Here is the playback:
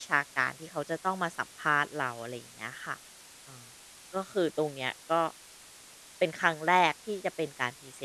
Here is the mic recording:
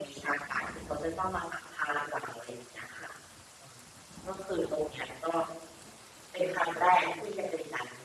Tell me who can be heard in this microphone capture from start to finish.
echo only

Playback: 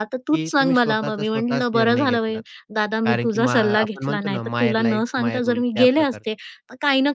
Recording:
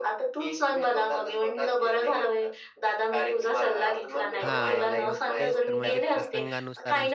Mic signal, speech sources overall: both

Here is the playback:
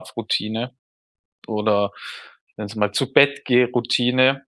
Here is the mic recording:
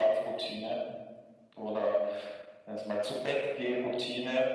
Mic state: echo only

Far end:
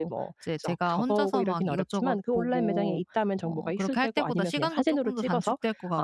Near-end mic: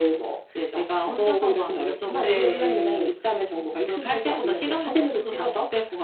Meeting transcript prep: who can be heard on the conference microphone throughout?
both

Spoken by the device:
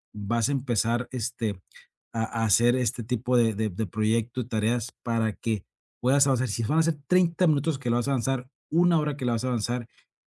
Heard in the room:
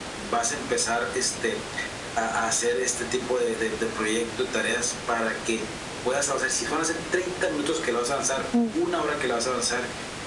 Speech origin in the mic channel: both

